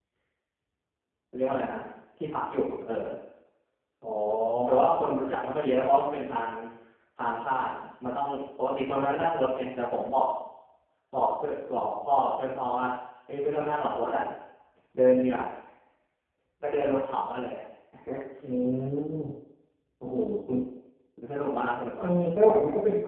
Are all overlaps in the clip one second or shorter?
Yes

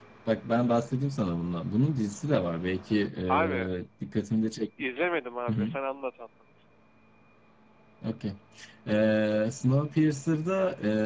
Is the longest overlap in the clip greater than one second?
No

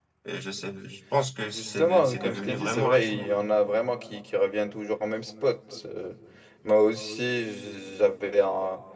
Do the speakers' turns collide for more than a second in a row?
Yes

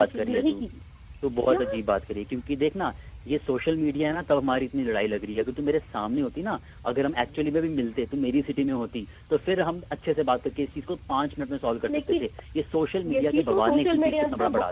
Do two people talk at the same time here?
Yes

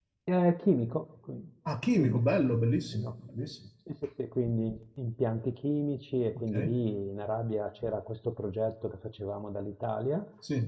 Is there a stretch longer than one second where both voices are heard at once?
No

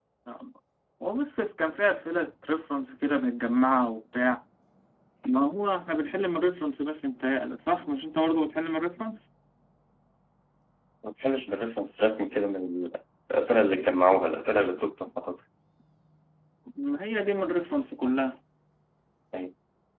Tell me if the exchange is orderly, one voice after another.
Yes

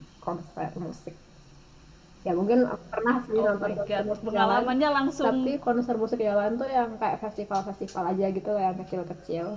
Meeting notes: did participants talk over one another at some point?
Yes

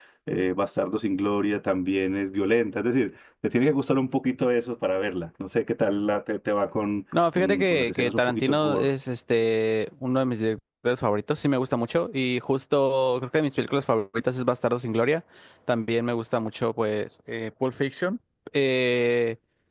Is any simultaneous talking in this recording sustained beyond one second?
Yes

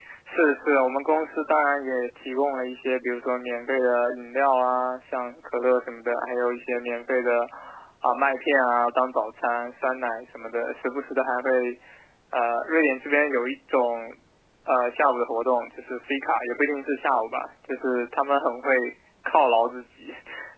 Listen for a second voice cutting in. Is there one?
No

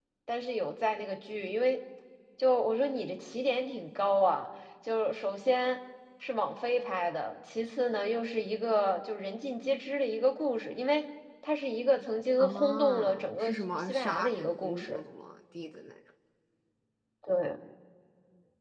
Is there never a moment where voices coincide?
No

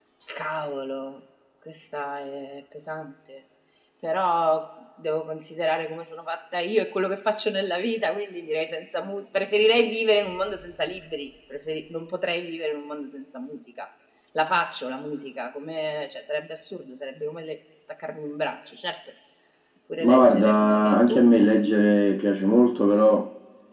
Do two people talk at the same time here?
Yes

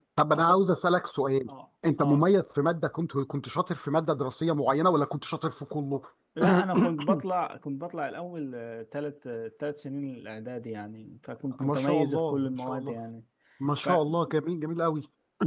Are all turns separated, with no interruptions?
No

